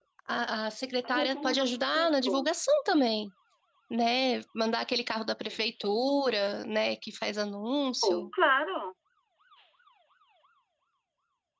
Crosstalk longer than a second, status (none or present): present